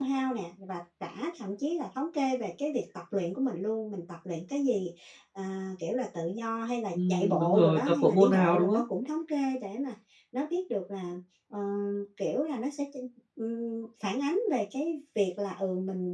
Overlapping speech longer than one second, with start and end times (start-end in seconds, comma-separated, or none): 6.9-8.8